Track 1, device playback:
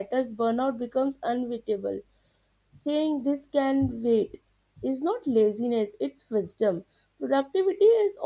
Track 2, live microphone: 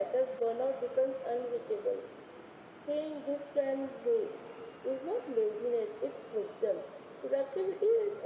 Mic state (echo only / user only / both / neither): echo only